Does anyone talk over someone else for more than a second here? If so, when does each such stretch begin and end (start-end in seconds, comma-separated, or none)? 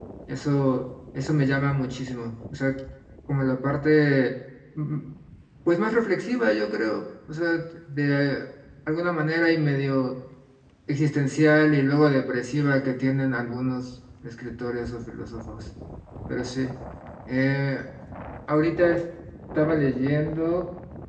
none